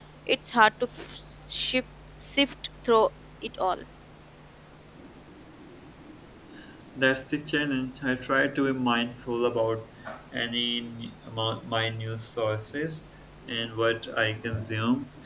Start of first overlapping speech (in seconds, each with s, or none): none